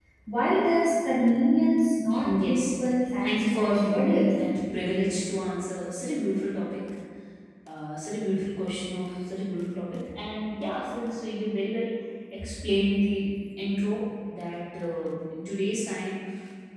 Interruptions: present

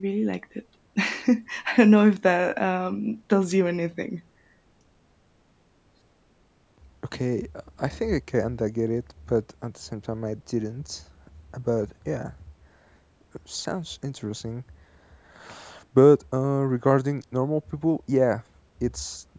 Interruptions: none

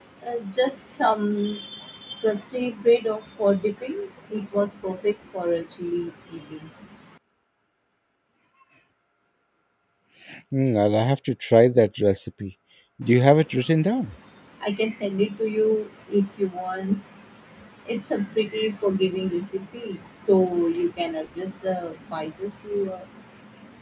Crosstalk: none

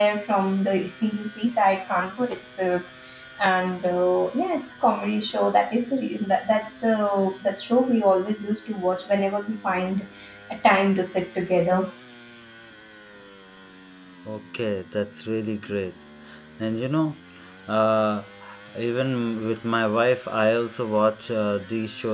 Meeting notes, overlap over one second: none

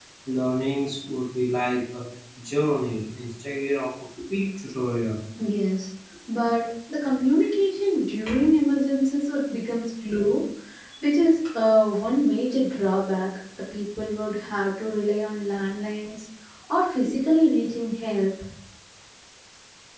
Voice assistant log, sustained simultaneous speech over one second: none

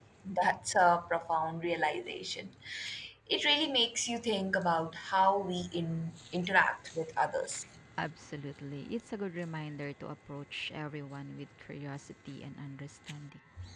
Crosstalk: none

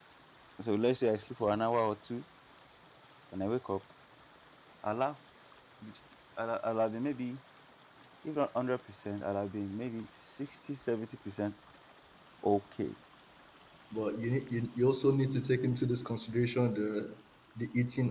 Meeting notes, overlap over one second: none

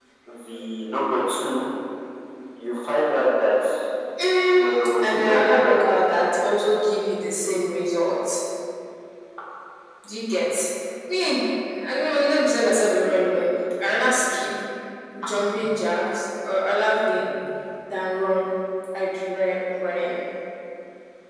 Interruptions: present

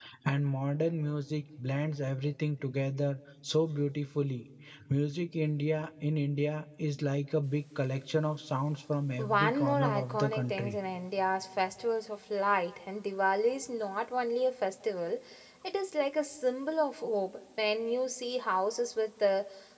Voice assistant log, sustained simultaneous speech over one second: present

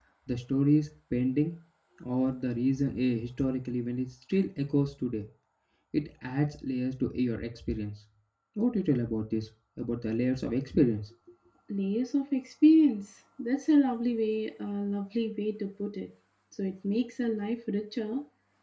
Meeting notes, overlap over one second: none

